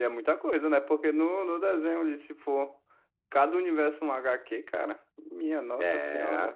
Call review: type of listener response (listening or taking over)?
taking over